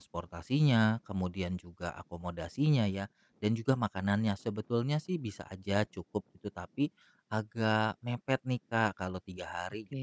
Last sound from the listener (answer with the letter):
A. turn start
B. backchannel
B